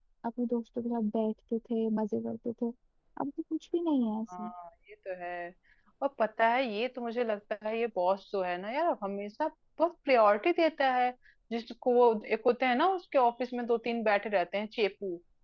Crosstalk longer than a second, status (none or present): none